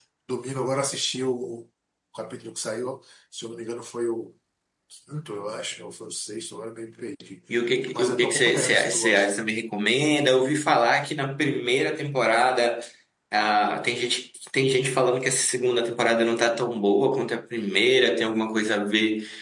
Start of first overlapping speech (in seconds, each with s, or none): 8.0 s